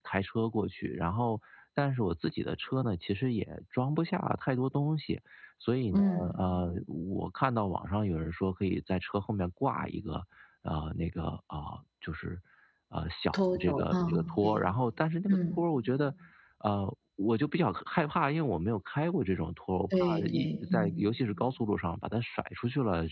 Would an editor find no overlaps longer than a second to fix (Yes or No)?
No